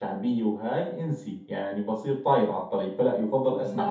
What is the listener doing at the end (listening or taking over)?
taking over